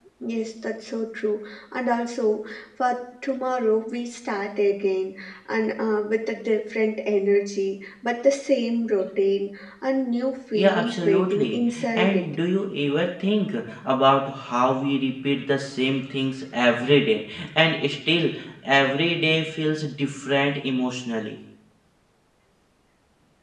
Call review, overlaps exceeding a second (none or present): present